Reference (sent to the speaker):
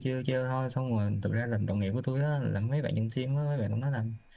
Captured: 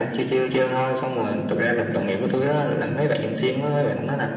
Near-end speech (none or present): none